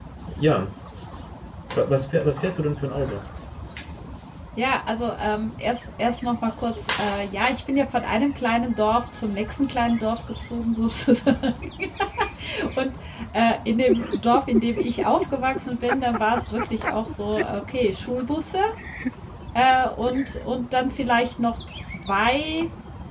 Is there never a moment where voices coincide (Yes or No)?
Yes